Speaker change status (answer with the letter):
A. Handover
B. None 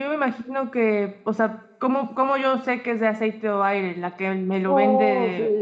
A